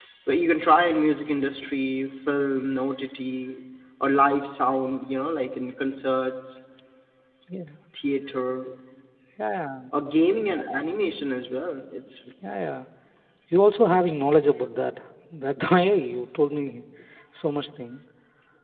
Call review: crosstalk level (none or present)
none